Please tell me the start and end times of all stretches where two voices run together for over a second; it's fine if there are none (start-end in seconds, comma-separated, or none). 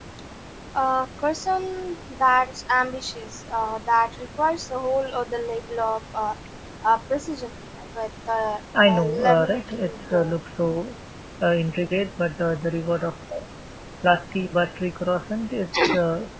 8.8-10.3